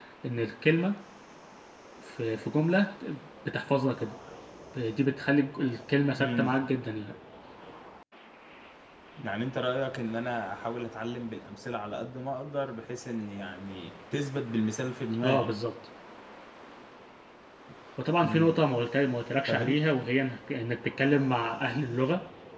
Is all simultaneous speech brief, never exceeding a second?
Yes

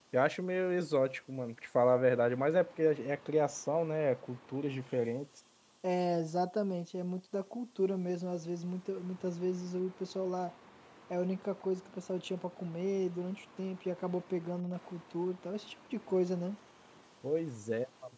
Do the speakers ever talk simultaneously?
No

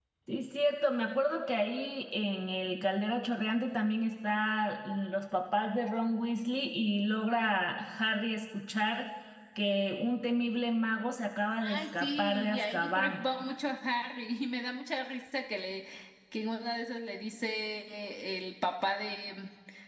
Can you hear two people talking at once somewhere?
Yes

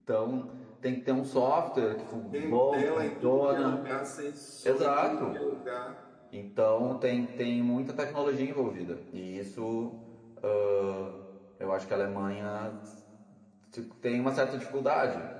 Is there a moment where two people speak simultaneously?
Yes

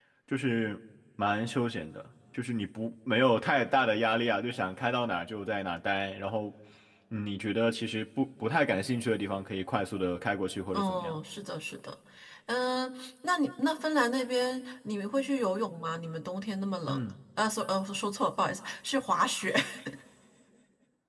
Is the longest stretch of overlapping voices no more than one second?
Yes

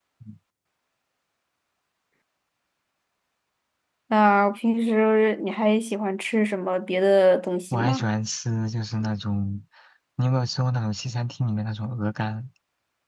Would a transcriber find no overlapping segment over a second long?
Yes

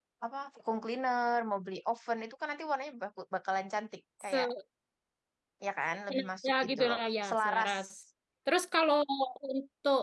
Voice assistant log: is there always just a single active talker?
No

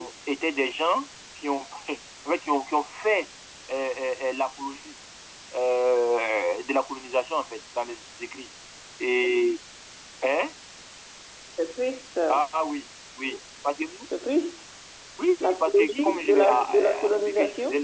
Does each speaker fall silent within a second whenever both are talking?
No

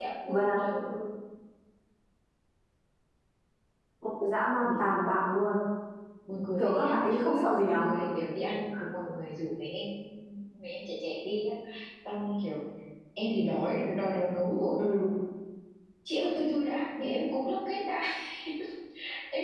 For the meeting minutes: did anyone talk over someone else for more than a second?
Yes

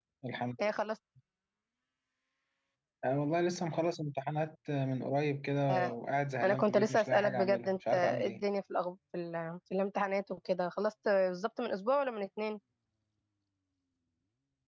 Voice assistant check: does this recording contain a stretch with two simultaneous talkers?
Yes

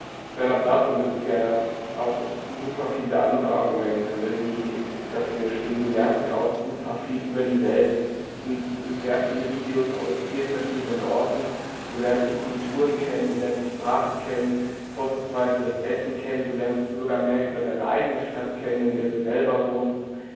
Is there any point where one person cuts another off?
No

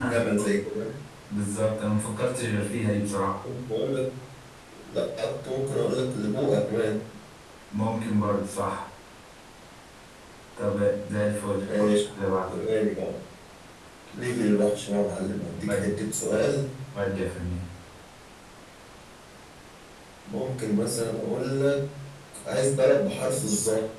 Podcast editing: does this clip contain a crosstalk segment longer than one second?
No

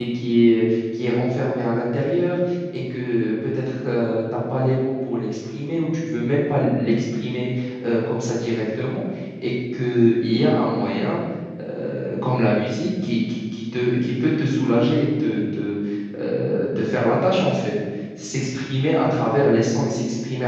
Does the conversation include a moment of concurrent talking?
No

